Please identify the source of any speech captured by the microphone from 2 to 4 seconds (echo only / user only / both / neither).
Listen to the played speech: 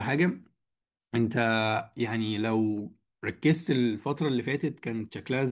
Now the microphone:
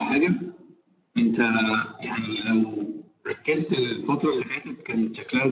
echo only